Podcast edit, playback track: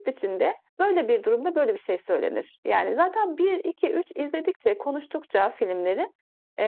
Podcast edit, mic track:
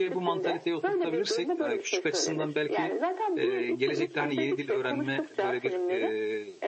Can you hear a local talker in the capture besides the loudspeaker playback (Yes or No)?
Yes